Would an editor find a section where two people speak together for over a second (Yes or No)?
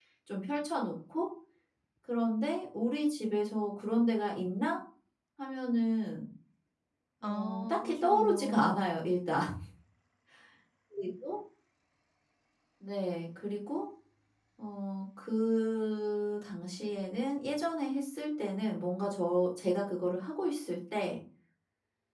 Yes